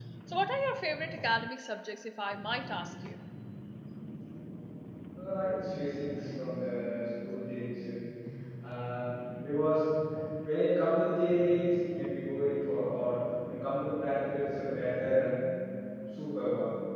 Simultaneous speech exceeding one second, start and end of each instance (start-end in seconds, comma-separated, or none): none